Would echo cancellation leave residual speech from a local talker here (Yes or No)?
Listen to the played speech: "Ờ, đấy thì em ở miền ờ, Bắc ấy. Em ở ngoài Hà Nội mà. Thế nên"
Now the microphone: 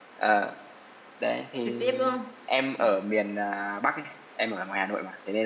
Yes